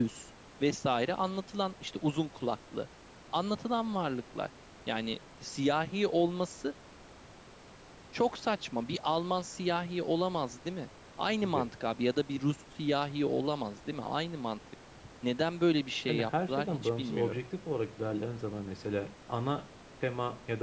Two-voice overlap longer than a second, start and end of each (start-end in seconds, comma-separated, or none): 16.1-17.4